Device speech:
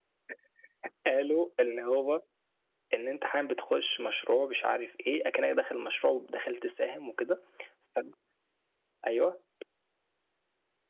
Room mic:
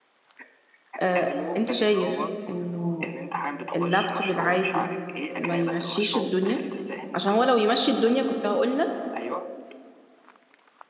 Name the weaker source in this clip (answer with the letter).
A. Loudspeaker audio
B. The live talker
A